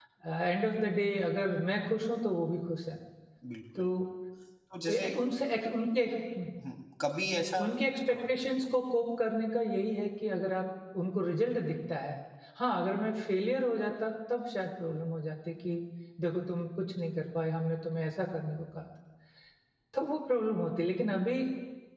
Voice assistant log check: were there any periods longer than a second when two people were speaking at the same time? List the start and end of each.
none

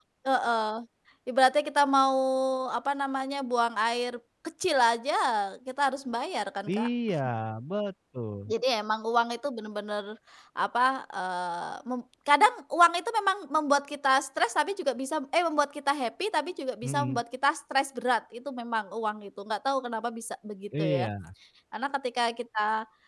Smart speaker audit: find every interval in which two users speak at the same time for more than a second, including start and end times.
none

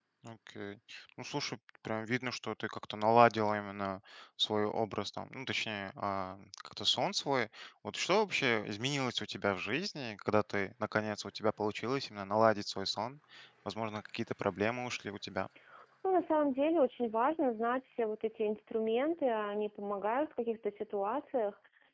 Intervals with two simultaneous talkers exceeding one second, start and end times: none

